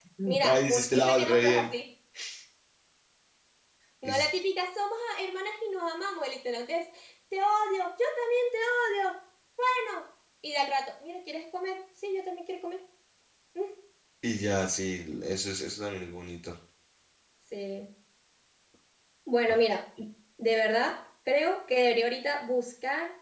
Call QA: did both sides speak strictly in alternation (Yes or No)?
No